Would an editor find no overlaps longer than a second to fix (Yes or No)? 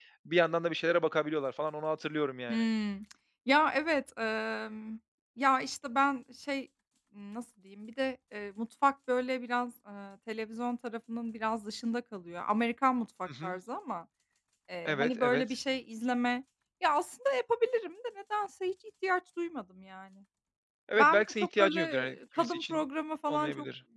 No